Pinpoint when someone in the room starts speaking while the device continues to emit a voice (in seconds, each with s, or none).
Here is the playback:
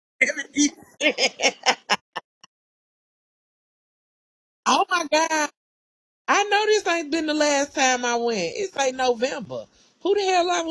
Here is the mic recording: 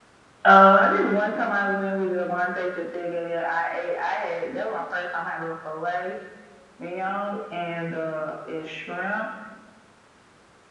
0.5 s